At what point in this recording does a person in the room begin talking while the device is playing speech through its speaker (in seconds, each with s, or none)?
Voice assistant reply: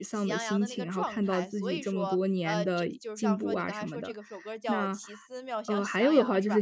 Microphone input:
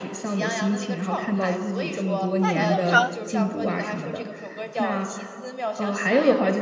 2.4 s